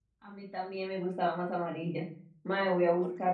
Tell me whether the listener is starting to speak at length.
No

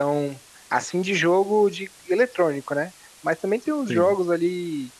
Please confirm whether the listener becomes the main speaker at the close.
No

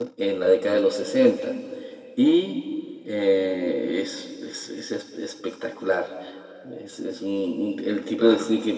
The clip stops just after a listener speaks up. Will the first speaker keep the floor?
Yes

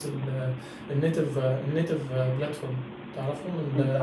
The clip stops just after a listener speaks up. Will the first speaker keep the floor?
Yes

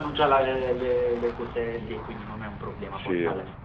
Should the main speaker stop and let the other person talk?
No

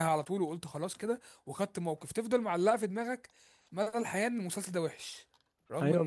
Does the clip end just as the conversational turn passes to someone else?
Yes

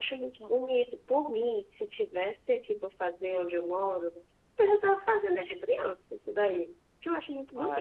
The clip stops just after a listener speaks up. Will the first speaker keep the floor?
No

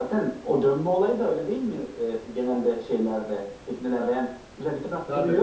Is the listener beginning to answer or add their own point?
No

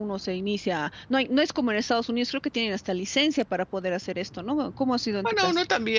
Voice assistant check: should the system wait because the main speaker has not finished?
No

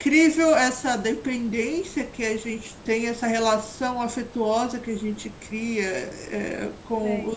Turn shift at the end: No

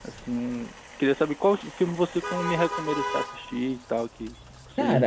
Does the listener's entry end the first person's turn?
Yes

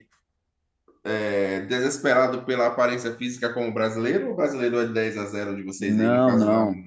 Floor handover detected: Yes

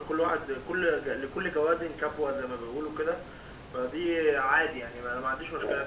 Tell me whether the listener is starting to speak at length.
Yes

